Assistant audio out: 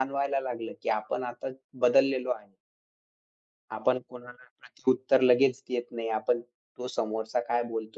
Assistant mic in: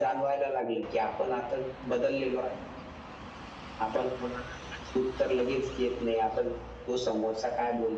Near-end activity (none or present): none